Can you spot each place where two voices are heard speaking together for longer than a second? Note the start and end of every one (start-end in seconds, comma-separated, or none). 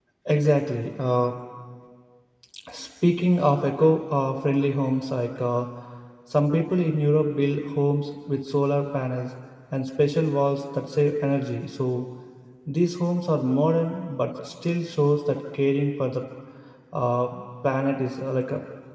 none